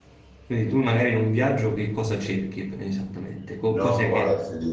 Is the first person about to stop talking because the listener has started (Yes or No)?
Yes